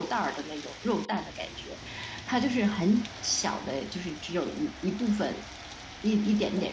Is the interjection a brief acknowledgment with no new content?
No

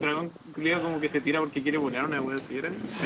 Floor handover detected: Yes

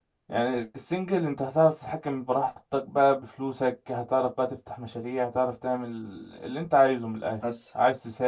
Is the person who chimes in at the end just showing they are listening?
Yes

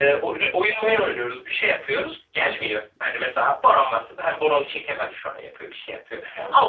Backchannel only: No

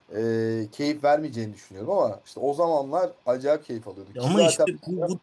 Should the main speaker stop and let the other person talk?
Yes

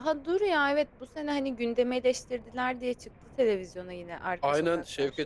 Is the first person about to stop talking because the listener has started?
Yes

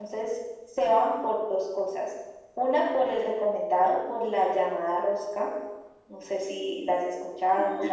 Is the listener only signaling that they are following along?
No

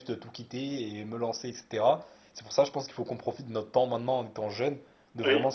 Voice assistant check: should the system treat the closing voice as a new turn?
No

